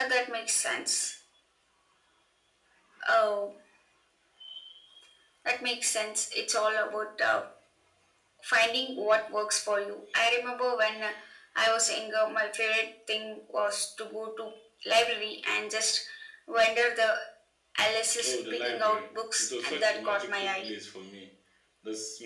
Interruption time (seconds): 18.2 s

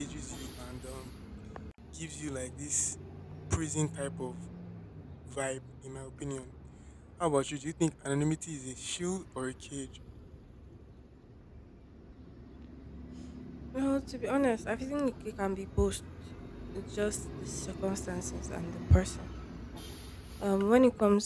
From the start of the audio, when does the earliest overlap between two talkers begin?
none

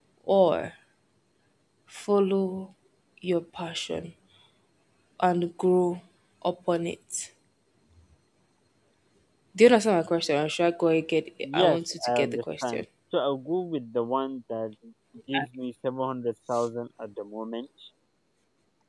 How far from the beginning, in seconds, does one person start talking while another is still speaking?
11.4 s

